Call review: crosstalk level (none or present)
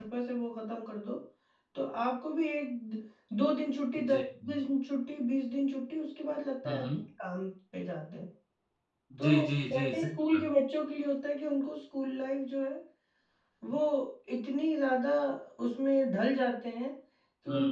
present